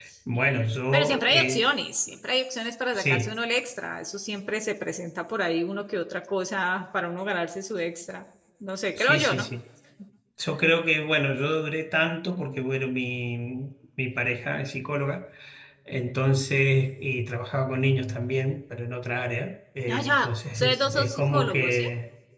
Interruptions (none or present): present